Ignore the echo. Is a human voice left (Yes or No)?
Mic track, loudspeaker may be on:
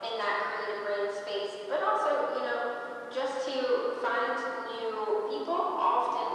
No